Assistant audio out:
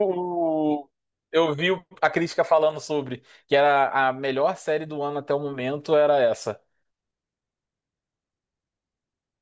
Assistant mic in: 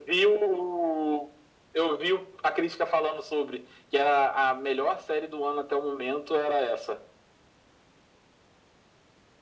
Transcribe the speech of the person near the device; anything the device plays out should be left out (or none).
none